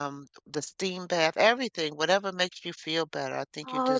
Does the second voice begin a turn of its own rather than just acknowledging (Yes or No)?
Yes